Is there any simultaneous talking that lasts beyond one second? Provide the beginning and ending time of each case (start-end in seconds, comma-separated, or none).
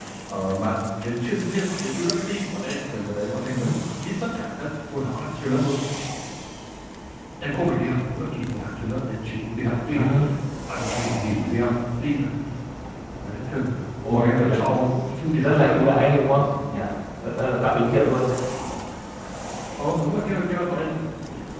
14.1-16.4